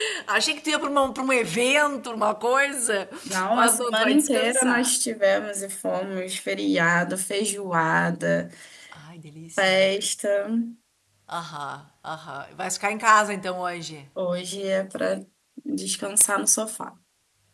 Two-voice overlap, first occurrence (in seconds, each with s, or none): 3.5 s